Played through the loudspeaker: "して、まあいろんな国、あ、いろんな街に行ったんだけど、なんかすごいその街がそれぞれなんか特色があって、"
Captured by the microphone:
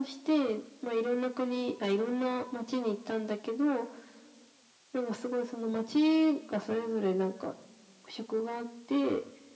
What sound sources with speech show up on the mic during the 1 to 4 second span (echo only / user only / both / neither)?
echo only